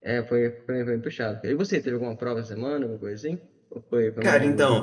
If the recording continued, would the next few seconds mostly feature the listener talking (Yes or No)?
Yes